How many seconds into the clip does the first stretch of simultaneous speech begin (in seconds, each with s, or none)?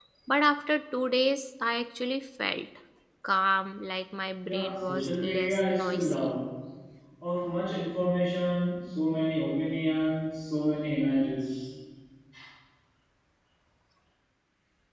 4.4 s